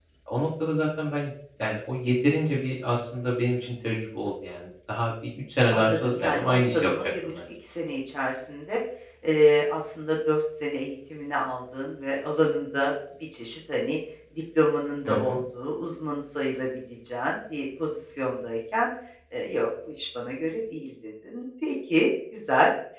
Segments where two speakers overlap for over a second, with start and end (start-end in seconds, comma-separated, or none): 5.7-7.4